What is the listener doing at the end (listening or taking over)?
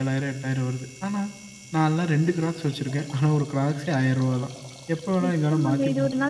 taking over